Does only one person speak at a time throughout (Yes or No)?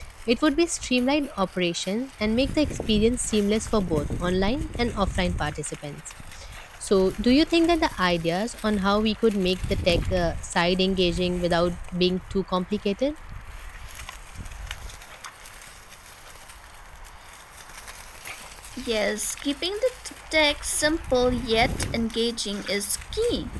Yes